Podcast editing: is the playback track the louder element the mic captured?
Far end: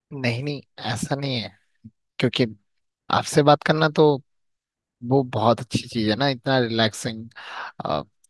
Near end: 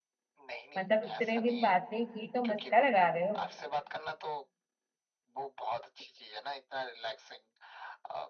No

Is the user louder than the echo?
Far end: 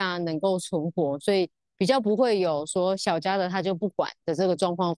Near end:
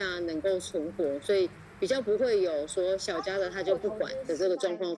No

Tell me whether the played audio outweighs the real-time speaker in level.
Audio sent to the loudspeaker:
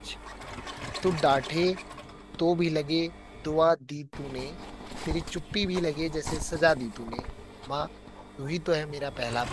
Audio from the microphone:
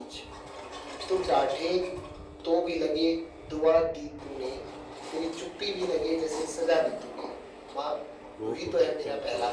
Yes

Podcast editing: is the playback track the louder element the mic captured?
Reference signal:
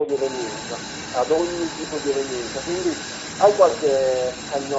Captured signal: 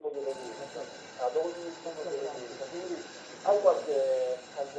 Yes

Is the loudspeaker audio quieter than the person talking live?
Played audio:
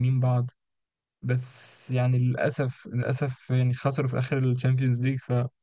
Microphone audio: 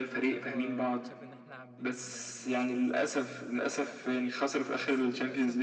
No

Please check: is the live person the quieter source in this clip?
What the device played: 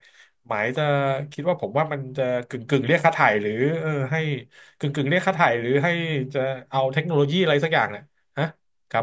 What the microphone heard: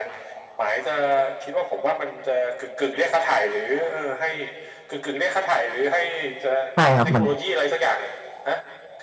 No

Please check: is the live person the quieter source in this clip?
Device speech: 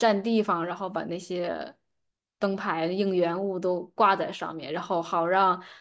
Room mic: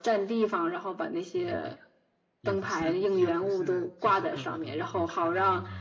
Yes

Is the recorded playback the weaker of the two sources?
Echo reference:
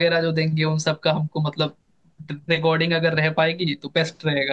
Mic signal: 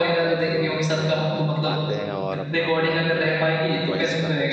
No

